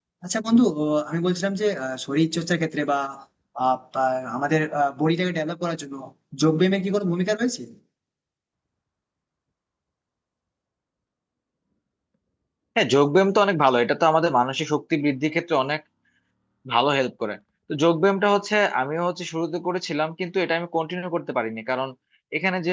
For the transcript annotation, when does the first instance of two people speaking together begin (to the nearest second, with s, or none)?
none